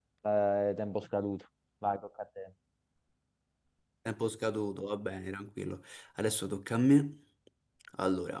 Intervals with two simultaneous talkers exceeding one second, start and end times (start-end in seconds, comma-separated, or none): none